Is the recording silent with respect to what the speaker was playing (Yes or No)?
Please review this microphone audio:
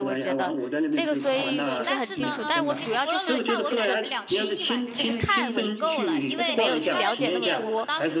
No